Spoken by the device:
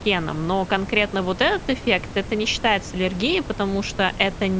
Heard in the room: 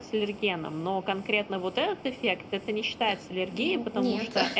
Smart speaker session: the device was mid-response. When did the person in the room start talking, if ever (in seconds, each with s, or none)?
3.0 s